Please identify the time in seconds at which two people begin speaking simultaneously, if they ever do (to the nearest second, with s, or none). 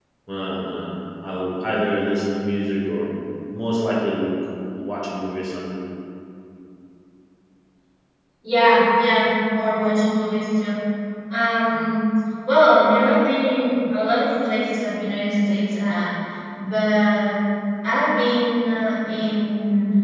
none